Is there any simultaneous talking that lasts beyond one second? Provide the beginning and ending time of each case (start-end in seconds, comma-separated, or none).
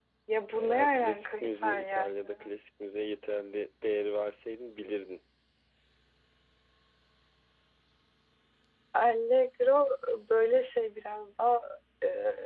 0.6-2.5